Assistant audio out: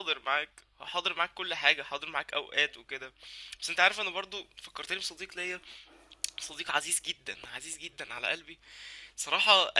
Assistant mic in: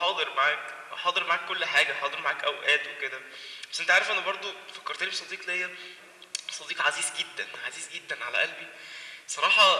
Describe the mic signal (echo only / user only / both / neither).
echo only